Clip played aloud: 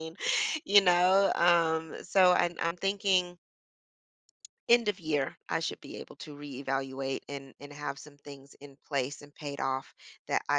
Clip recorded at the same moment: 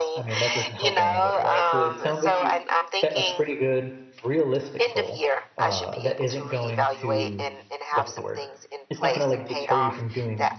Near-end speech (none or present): present